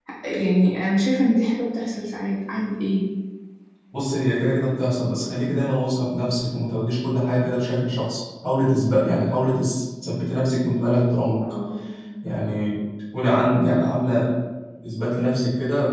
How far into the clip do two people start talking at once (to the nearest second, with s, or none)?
none